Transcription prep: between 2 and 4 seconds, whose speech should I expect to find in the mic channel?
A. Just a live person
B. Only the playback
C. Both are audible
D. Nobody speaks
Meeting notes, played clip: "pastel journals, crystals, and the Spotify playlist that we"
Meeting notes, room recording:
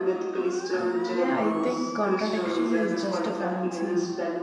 C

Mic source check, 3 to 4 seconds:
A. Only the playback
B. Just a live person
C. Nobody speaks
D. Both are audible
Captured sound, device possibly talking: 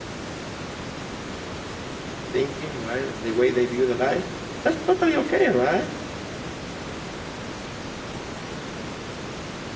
B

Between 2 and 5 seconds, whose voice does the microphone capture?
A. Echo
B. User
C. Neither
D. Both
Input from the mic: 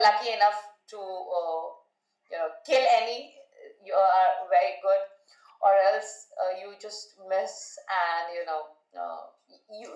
A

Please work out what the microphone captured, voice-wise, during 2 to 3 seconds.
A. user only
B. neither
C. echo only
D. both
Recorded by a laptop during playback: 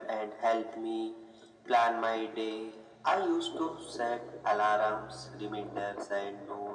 C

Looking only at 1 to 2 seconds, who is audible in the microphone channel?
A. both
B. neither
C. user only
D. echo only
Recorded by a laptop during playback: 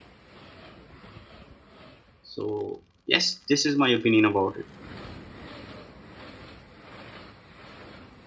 B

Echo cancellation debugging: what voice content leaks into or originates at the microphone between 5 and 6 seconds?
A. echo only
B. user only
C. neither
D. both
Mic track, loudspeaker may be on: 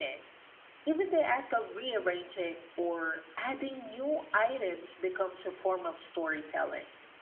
A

